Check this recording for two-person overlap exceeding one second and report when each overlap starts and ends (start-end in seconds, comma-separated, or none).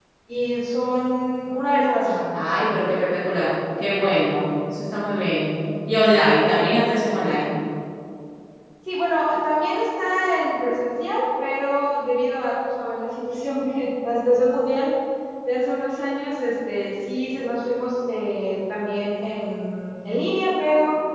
none